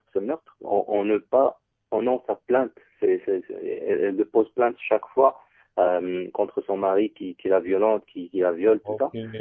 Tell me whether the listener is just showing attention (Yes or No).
Yes